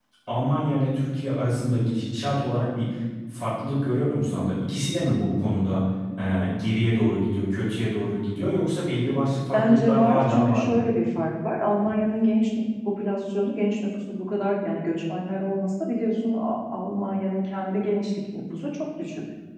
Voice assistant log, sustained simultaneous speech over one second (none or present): present